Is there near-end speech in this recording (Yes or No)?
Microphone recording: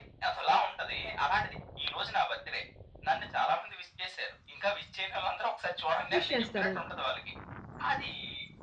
Yes